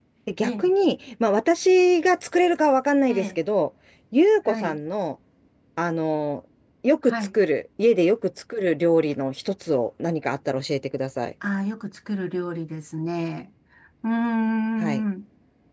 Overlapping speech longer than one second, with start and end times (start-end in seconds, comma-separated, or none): none